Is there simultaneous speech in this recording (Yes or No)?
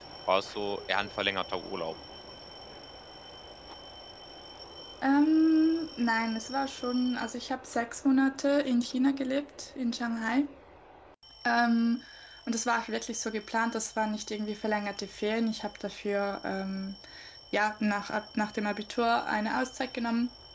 No